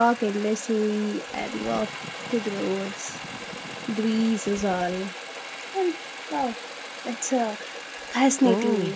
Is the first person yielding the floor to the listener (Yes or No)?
Yes